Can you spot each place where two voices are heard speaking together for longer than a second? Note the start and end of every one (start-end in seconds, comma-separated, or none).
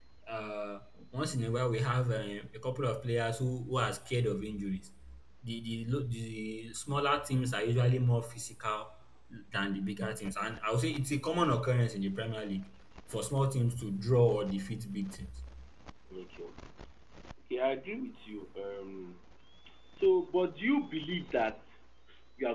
none